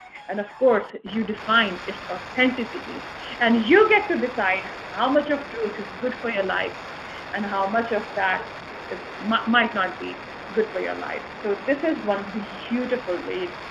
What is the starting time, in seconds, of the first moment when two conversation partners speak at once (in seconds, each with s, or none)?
none